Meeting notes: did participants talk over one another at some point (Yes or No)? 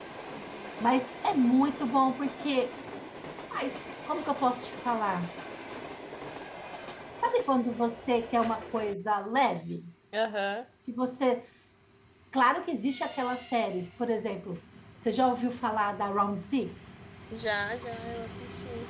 No